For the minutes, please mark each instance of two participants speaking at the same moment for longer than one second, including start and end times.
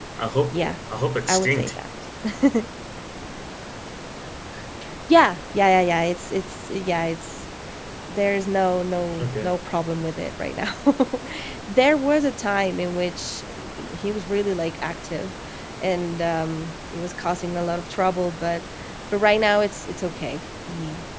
none

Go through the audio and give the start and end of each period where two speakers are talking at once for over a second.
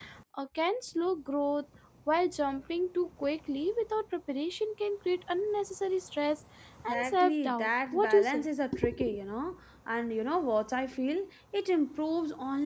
6.9-8.5

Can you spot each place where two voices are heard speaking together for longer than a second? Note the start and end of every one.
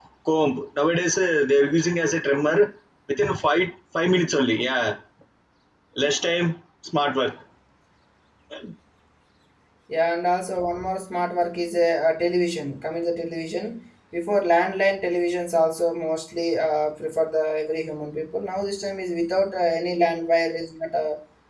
none

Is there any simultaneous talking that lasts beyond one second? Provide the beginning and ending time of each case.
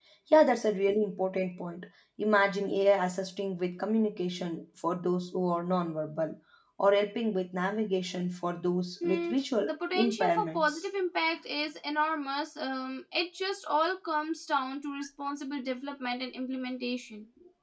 9.0-10.8

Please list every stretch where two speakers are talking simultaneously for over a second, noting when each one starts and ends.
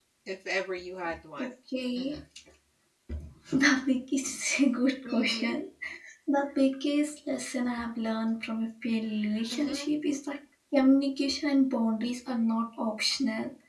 none

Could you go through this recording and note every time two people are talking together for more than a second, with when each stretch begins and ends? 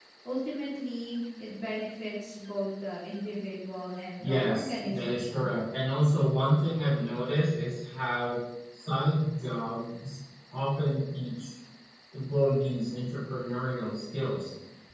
4.2-5.5

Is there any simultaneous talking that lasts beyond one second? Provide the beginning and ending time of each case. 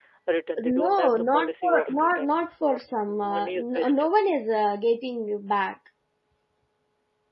0.6-4.1

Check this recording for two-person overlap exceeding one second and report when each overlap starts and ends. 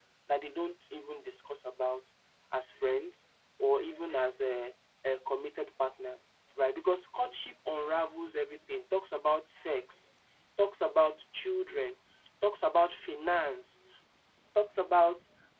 none

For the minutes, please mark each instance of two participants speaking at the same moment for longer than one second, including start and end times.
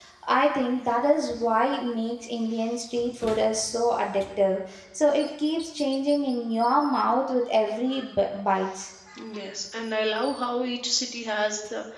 none

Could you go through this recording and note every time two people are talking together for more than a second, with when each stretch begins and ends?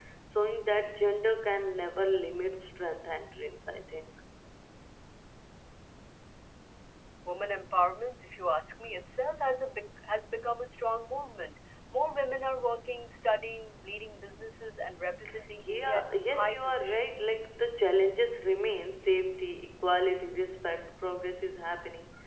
15.6-17.2

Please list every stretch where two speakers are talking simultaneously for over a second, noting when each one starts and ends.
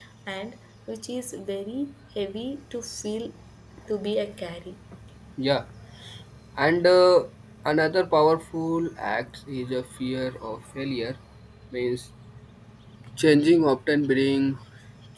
none

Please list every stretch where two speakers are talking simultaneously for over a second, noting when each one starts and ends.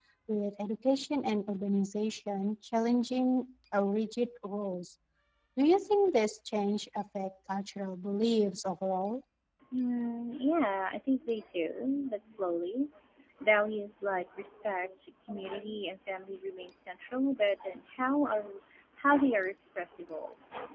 none

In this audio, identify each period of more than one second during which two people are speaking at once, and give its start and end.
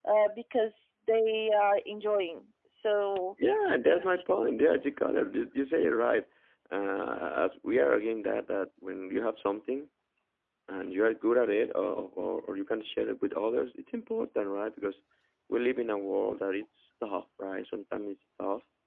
none

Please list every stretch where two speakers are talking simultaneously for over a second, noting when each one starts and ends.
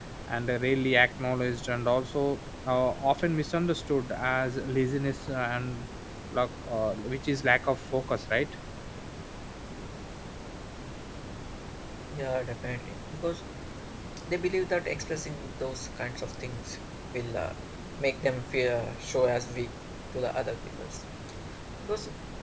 none

